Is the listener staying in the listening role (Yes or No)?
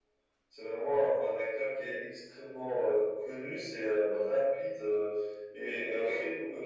Yes